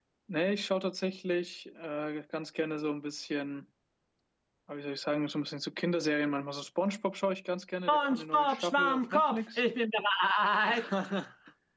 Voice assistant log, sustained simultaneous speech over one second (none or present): present